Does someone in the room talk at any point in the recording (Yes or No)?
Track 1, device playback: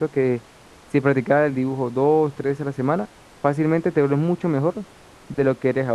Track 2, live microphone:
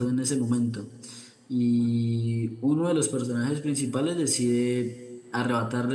Yes